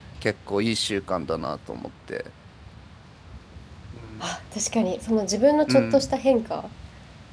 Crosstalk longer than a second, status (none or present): none